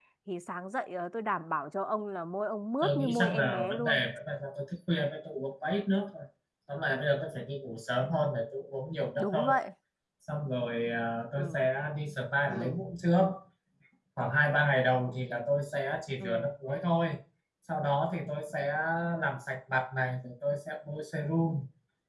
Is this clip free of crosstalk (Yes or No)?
No